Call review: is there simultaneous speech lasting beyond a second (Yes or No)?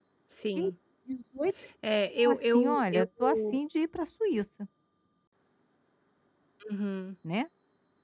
Yes